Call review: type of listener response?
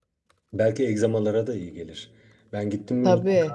listening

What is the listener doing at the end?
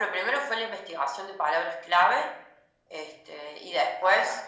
listening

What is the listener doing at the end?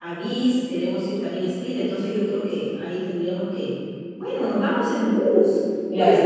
listening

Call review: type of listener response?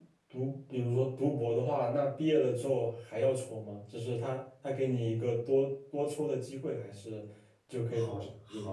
taking over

